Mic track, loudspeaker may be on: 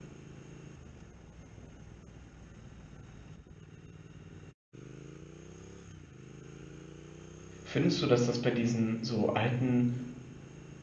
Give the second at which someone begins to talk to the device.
7.6 s

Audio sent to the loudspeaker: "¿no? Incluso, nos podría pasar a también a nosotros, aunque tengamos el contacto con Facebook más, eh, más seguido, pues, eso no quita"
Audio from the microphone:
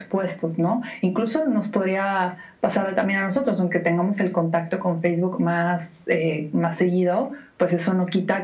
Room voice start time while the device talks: none

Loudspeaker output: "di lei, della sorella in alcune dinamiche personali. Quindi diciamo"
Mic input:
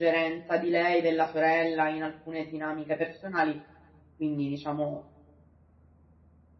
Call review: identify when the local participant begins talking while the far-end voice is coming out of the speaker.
none

